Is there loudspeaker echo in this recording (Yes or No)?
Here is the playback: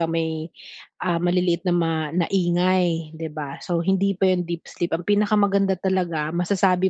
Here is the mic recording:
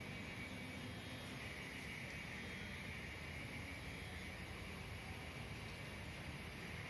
No